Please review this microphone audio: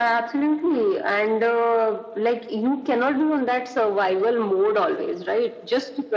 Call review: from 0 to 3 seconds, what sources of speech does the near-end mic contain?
echo only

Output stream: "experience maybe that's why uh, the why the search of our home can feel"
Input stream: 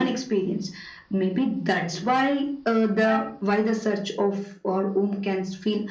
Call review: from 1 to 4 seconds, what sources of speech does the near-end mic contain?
echo only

